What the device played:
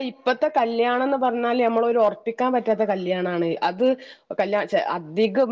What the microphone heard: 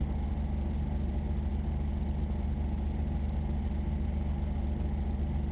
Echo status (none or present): none